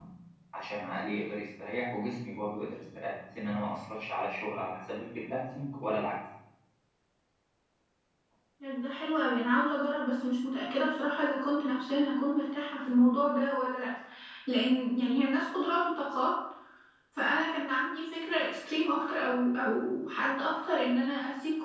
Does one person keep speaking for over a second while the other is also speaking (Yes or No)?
No